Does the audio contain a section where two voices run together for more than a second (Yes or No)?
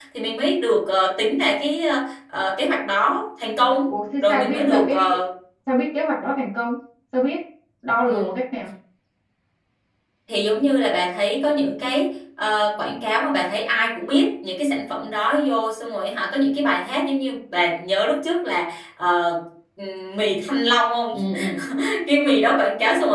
Yes